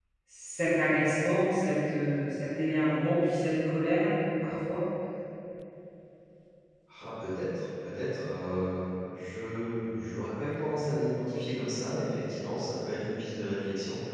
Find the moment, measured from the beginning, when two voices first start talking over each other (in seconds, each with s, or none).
none